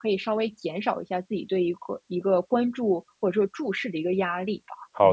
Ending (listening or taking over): taking over